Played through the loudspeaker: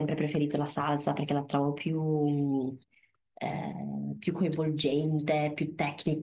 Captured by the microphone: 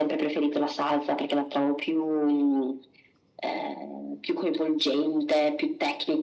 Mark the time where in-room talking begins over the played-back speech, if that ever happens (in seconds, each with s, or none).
none